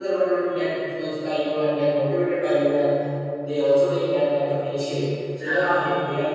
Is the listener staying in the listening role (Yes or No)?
Yes